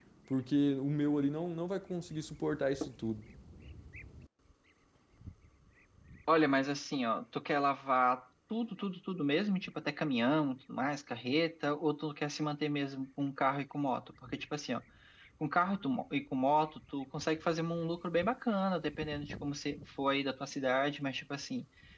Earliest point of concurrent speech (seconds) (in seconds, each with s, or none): none